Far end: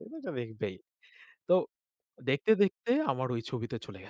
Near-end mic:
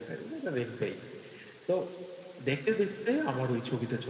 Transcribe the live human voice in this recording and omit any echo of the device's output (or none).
none